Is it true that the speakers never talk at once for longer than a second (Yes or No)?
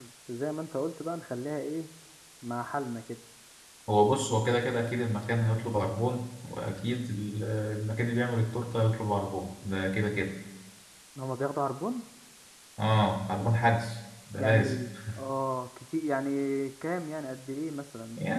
Yes